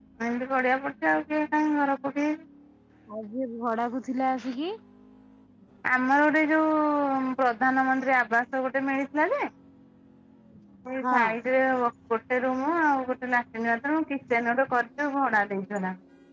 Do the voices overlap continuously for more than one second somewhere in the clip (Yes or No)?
No